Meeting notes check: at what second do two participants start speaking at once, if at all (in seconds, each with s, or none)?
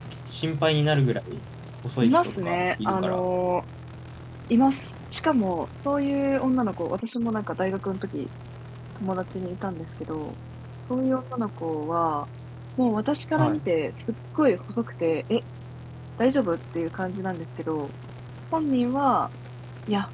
2.0 s